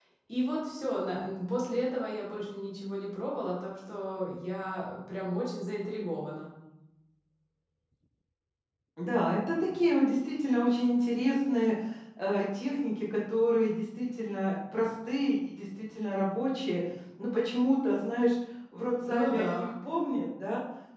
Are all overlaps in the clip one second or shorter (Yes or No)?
Yes